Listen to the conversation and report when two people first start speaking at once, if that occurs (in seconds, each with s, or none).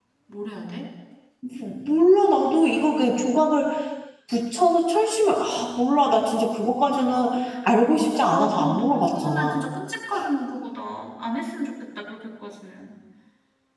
8.3 s